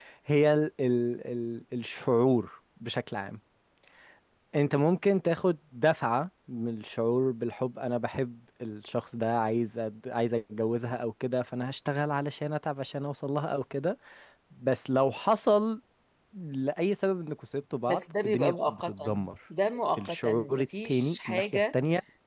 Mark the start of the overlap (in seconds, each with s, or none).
17.9 s